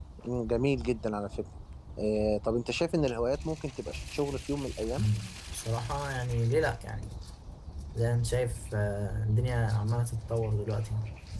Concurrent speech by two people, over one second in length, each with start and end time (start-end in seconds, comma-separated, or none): none